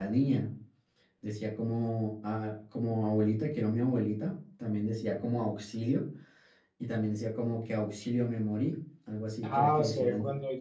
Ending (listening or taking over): taking over